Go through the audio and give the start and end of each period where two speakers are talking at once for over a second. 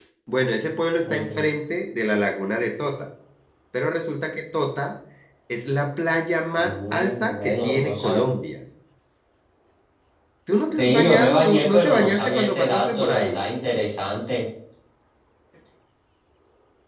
6.6-8.2, 10.8-13.4

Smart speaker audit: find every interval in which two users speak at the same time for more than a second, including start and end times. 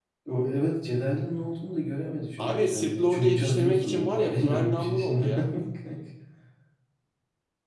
2.4-5.3

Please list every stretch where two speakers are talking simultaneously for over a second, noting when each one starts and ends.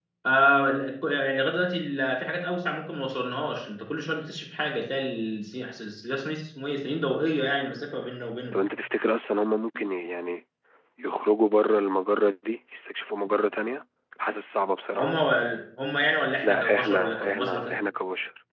16.4-17.7

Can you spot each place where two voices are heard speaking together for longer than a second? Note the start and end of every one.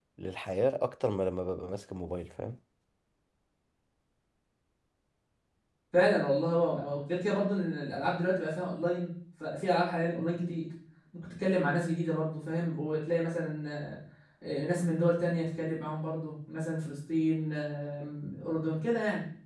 none

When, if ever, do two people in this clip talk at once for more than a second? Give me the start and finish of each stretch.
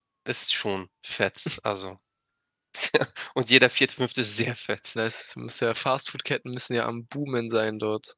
none

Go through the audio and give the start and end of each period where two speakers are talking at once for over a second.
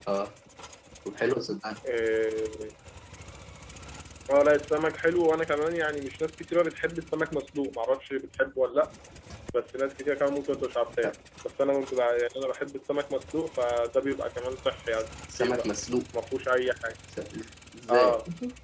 none

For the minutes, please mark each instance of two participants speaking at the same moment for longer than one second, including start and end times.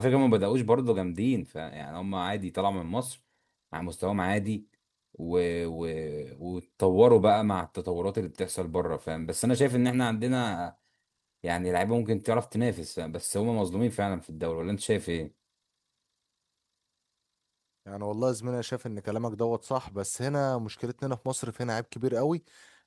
none

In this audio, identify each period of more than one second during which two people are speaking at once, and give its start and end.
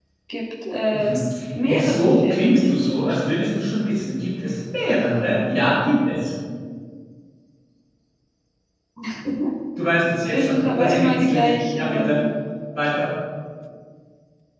1.7-3.5, 10.3-12.1

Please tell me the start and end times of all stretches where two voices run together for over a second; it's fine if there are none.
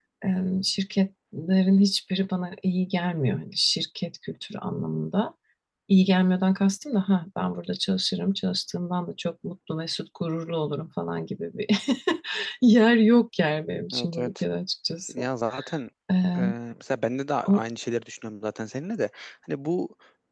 none

